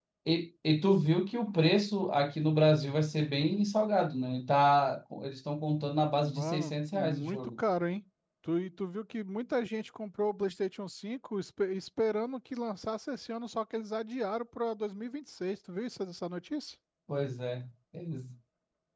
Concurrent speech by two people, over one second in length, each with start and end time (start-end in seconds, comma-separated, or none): 6.2-7.5